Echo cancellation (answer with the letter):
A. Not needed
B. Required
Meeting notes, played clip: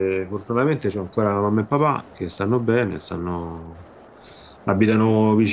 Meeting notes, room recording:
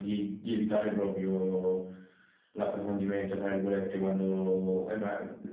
A